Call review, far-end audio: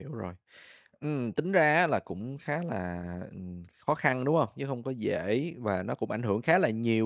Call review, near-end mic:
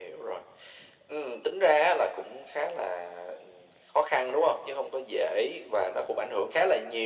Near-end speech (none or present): none